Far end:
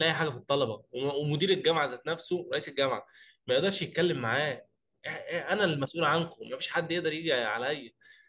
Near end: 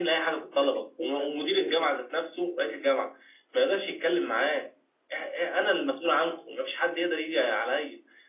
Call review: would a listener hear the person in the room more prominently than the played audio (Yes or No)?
No